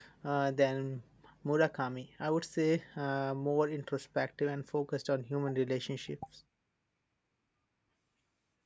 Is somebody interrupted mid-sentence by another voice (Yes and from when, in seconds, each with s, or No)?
No